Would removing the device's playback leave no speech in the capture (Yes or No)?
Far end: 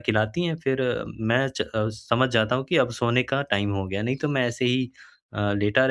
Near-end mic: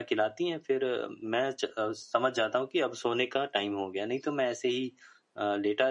Yes